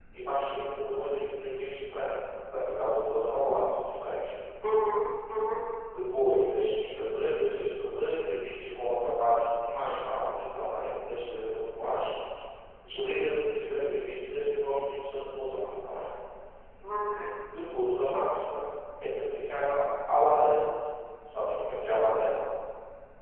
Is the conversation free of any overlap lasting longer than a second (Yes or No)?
Yes